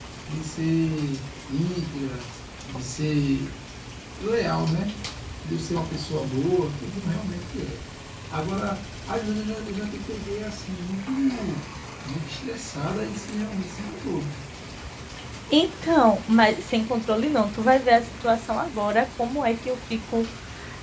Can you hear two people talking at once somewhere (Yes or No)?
No